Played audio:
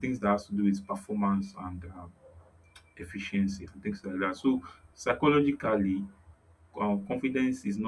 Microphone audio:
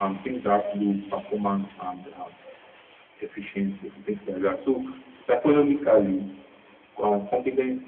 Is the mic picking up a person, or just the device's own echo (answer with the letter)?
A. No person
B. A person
A